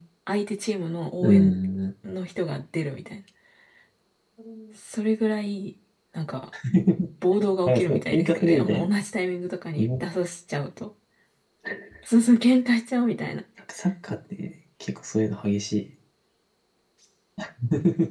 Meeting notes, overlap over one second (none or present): present